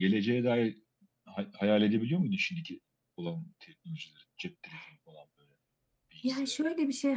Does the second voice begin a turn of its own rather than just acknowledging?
Yes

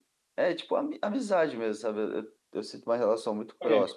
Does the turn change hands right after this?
No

